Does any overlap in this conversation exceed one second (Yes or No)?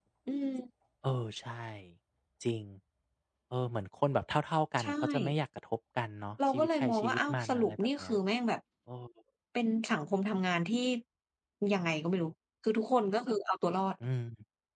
Yes